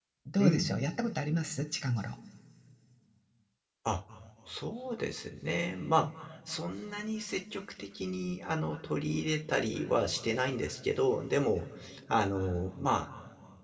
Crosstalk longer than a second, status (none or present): none